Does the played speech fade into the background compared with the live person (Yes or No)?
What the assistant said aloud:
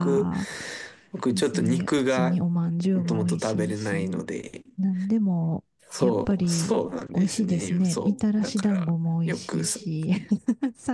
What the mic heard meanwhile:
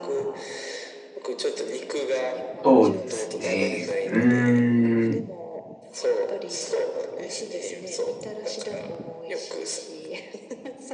Yes